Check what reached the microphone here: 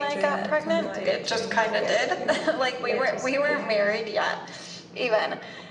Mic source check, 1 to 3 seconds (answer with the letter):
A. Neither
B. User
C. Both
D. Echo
C